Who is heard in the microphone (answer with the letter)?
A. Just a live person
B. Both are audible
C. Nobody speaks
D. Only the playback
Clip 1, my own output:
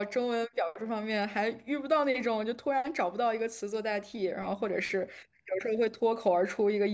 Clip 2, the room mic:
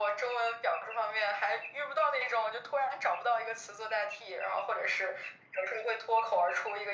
D